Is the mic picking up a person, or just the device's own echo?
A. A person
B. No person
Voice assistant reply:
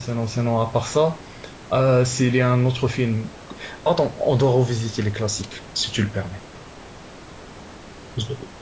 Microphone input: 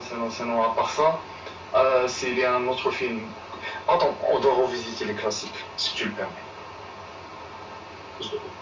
B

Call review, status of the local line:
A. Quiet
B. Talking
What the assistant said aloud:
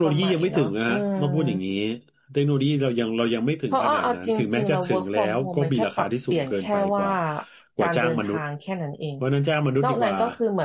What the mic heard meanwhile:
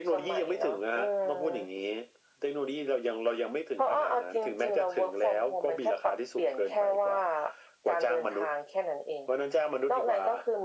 A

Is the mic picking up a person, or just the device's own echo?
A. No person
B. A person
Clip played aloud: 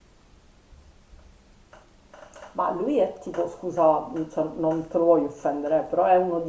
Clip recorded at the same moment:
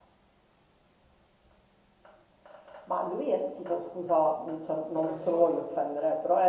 B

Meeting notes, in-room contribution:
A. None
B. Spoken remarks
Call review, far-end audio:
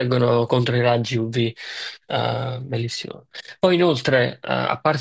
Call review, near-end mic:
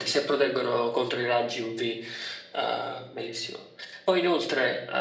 A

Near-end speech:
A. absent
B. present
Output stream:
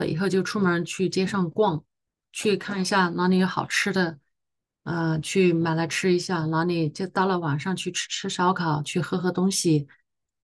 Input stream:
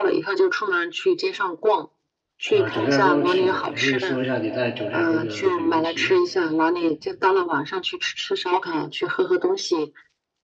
B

